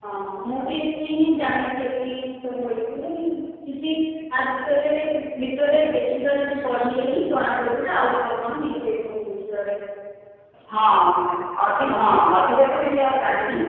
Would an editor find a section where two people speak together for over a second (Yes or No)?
No